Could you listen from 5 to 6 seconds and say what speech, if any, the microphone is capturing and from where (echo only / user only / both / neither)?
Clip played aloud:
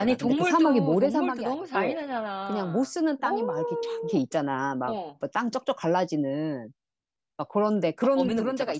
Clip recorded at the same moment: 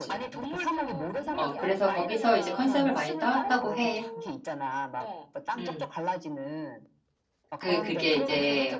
both